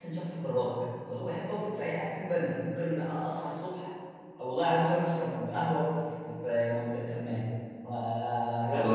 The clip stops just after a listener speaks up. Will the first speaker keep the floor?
Yes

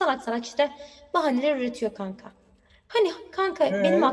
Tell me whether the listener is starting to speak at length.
No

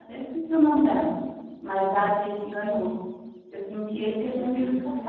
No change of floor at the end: No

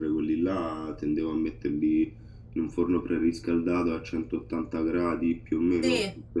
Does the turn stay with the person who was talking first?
No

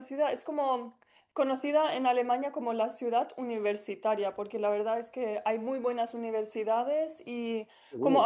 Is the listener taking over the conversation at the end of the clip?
No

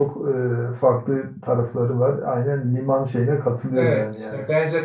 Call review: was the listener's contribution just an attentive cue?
No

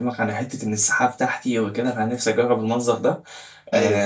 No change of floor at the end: Yes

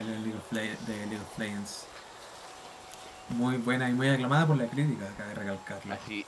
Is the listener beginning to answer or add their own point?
Yes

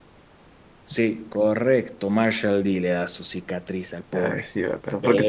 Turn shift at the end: Yes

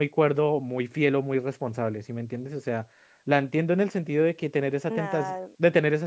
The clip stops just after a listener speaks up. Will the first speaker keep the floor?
Yes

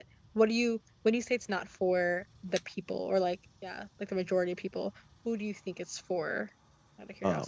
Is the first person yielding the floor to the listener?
Yes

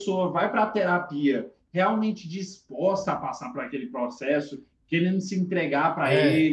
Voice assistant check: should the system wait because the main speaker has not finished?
Yes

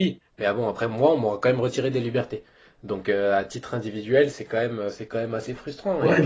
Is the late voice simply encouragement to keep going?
No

